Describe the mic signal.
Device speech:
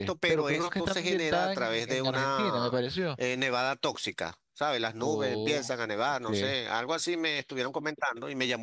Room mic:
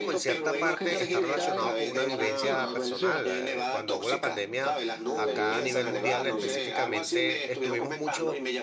both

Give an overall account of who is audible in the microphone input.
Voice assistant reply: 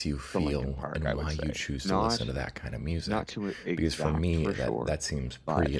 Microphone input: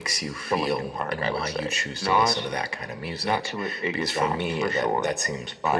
echo only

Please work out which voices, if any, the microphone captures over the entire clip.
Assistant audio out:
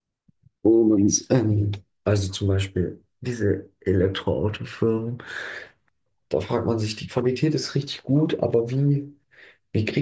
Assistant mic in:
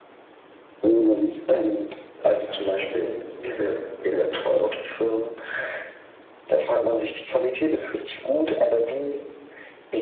both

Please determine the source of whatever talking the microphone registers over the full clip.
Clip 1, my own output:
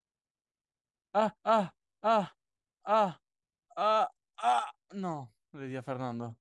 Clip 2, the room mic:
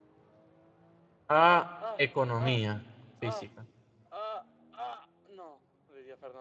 both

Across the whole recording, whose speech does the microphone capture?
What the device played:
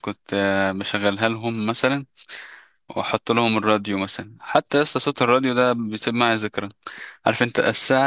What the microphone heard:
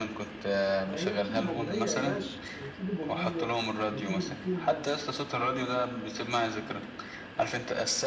both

